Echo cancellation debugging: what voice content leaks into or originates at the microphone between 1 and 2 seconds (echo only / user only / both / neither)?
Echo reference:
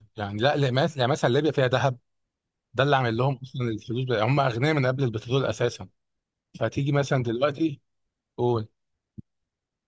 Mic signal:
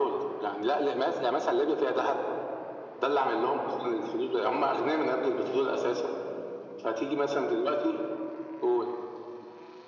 echo only